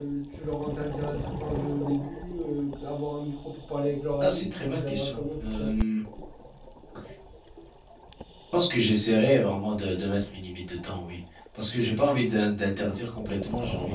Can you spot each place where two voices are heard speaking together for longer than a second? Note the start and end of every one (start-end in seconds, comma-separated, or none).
4.2-5.7